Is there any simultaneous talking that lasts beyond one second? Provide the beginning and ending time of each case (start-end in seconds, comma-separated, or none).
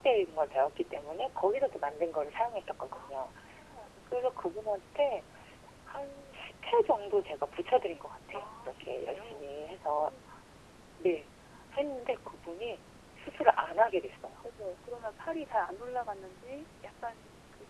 8.3-10.1